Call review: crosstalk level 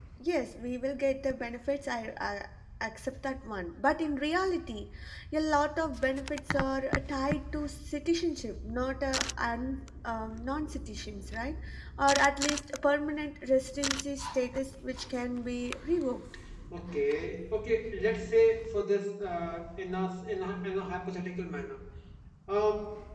none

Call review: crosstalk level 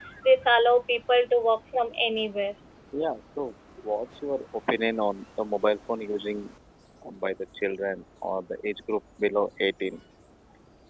none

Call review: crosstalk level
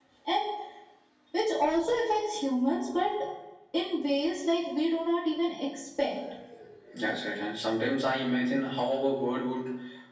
none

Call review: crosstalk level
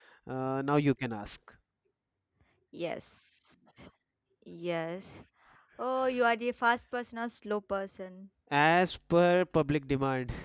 none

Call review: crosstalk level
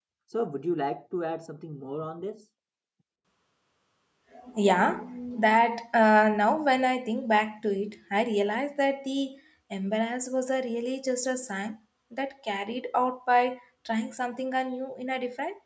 none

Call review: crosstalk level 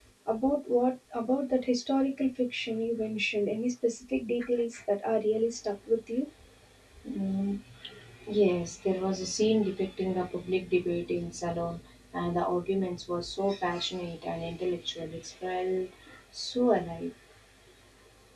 none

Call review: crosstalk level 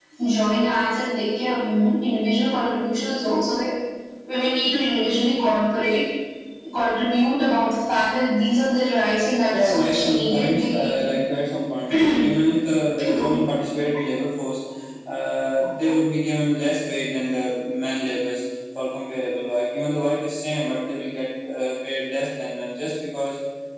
present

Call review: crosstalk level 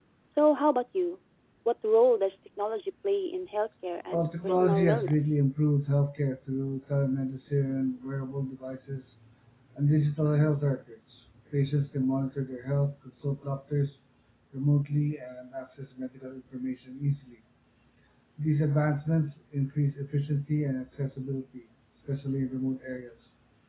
present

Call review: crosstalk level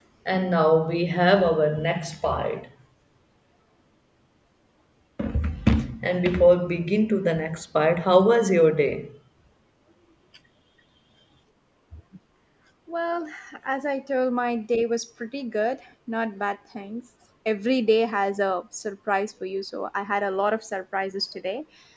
none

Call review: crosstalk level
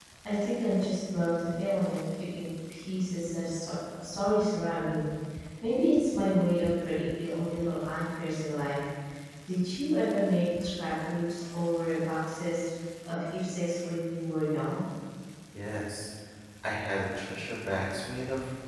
none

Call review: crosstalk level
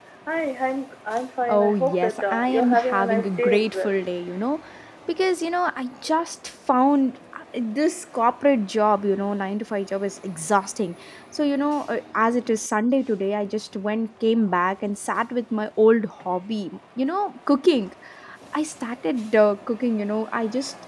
present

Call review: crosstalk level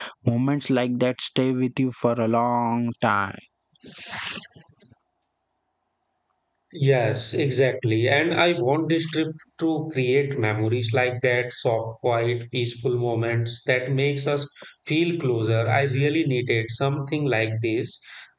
none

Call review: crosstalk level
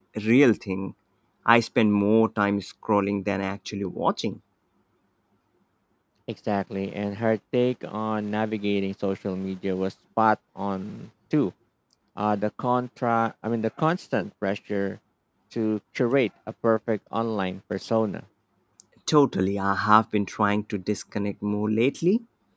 none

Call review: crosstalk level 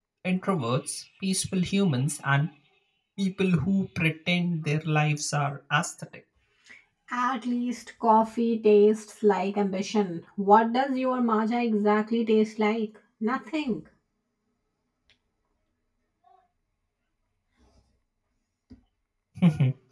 none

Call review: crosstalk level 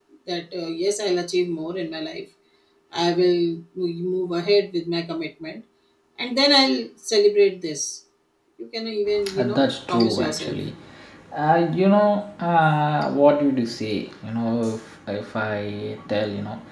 present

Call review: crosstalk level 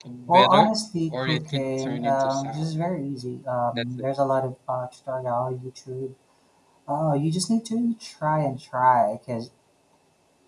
present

